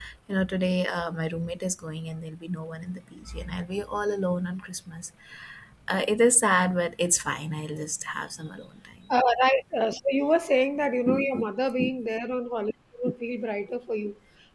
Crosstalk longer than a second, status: none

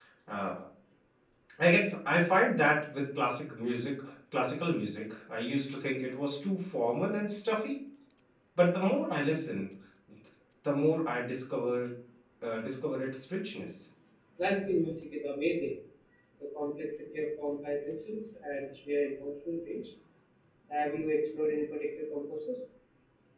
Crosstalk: none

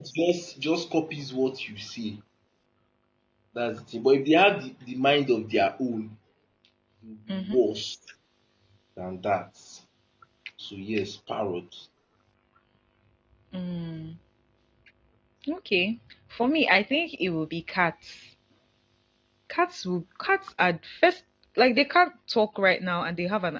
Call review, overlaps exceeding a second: none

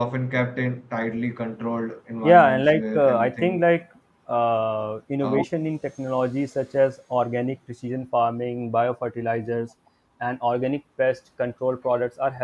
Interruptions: present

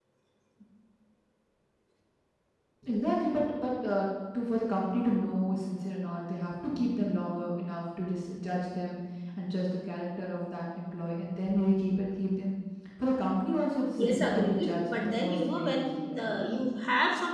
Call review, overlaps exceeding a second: present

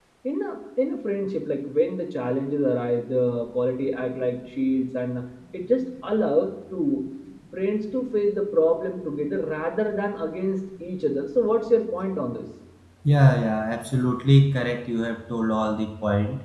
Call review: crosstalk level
none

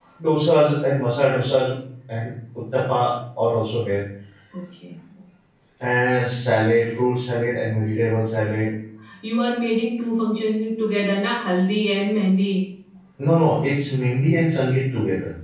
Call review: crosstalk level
none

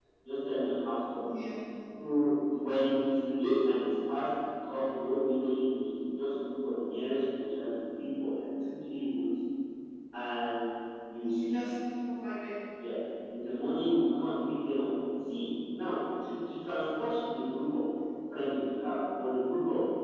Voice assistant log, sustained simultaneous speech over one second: none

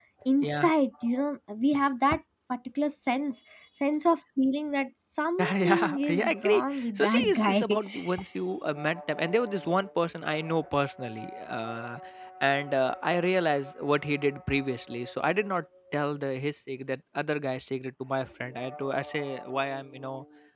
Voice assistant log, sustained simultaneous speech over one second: present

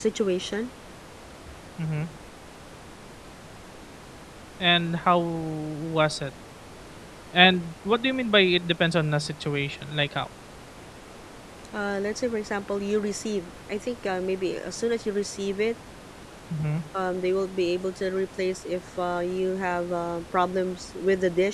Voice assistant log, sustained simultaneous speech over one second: none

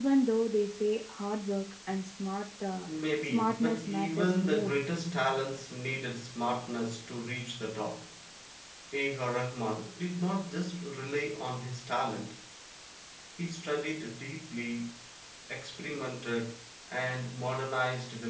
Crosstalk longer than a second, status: present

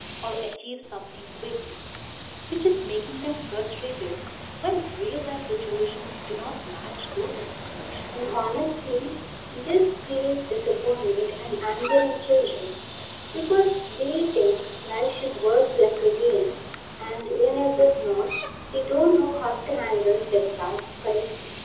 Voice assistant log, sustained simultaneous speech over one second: none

